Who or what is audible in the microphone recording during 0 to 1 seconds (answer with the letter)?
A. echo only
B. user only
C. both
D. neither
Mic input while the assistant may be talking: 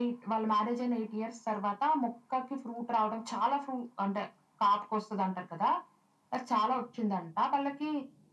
A